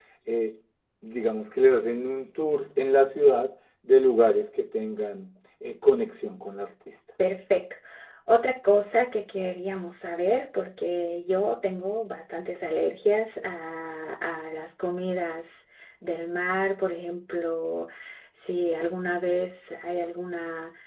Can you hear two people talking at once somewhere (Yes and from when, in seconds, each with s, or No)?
No